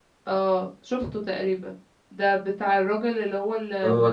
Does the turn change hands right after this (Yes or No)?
No